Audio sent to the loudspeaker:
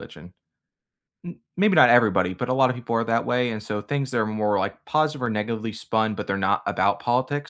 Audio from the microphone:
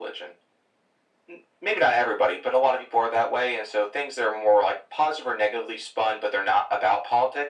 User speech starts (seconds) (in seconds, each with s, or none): none